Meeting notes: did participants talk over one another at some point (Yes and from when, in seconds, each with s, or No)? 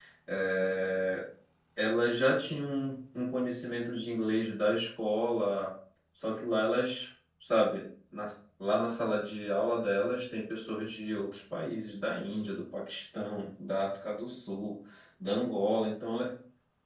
No